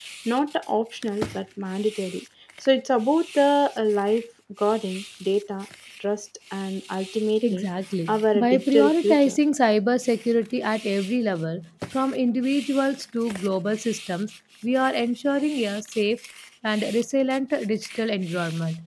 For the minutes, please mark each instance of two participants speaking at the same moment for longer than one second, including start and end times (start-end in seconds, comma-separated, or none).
8.1-9.4